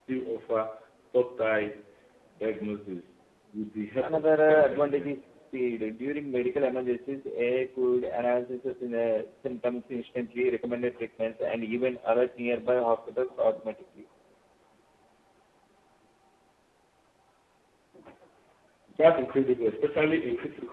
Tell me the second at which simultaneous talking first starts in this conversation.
4.0 s

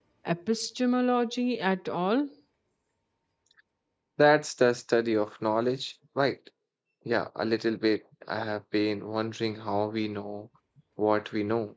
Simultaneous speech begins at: none

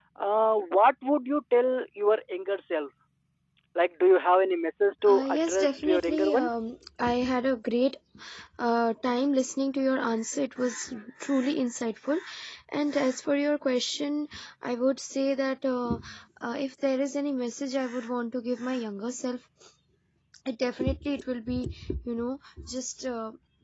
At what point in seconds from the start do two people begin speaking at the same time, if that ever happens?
5.0 s

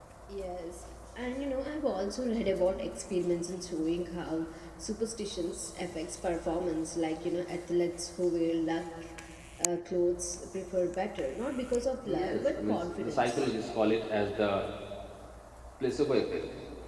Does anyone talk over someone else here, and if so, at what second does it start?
12.0 s

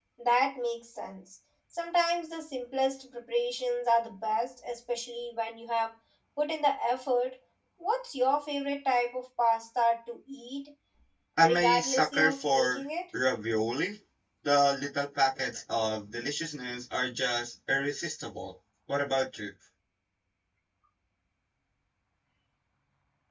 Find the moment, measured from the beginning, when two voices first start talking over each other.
11.4 s

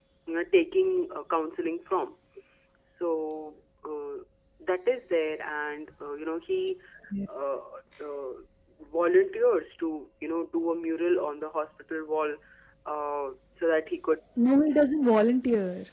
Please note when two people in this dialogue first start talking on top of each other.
none

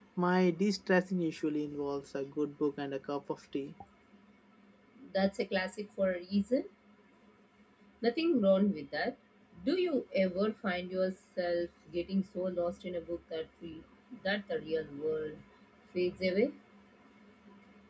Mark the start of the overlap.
none

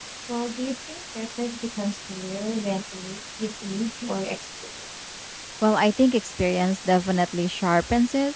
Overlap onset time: none

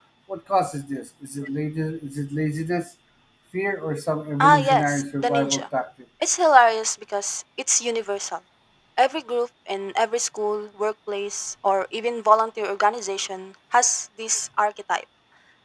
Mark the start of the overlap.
4.4 s

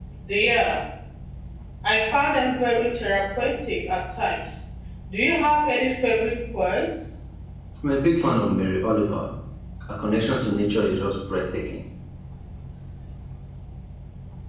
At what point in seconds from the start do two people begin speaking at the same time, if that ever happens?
none

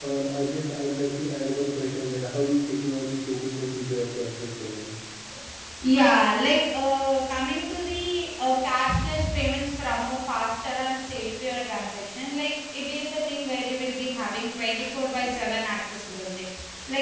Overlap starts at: none

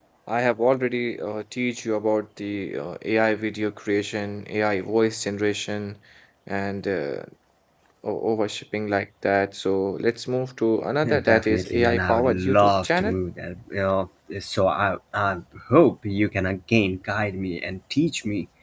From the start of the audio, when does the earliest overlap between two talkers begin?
11.0 s

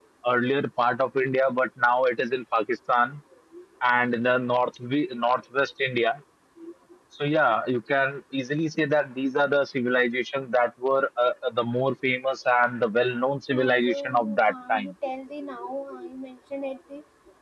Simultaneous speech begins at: 13.5 s

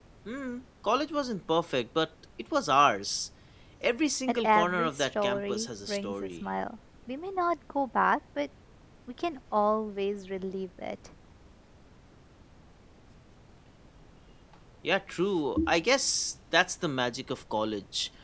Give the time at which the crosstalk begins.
4.3 s

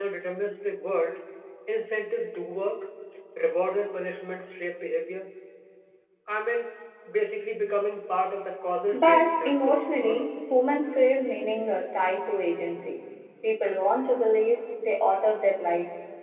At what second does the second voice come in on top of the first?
8.9 s

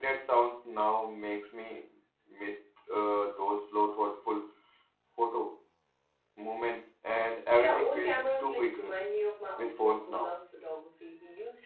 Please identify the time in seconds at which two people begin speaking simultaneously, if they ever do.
7.6 s

